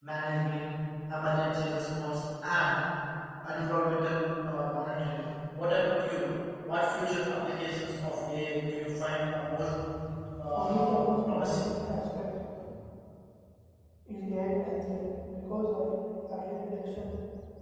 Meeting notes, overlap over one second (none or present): present